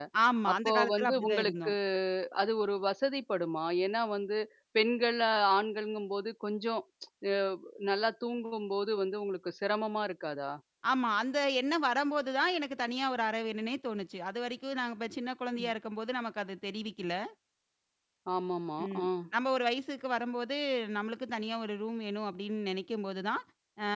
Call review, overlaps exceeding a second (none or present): present